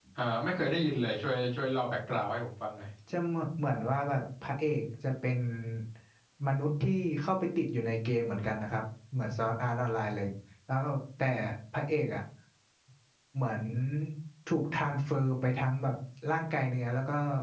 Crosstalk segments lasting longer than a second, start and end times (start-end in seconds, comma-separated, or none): none